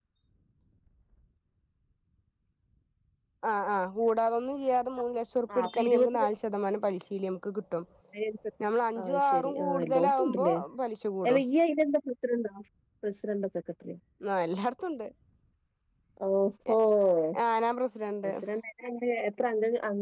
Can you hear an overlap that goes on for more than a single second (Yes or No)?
Yes